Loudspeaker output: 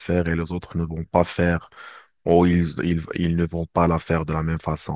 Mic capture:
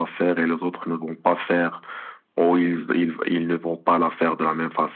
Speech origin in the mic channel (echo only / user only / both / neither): echo only